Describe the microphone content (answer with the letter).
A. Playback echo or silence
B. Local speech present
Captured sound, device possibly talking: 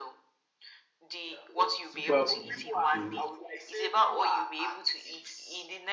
B